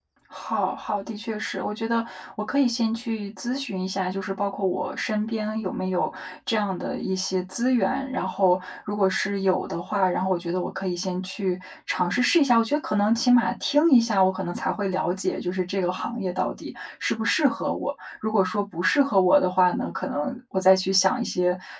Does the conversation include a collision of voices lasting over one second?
No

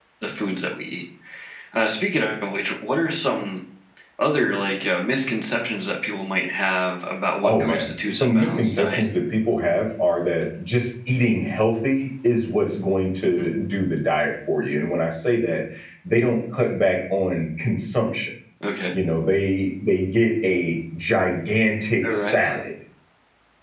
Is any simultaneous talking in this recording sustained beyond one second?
Yes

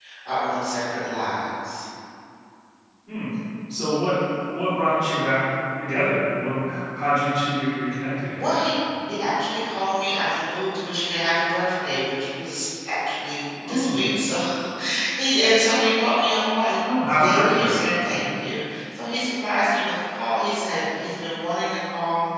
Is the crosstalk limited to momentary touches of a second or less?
Yes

